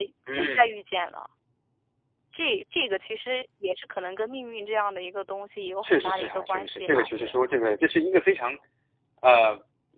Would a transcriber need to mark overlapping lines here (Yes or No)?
Yes